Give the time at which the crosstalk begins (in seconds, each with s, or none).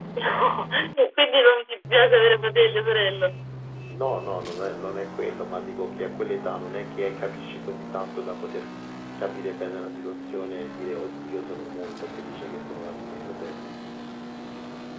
none